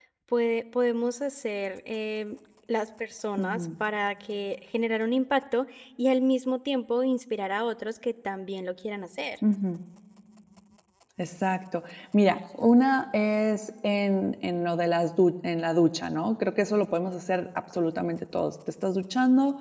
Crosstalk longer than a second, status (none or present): none